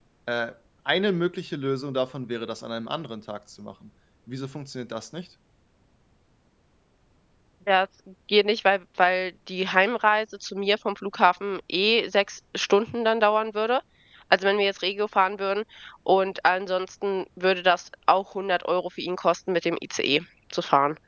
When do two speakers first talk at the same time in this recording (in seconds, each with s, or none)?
none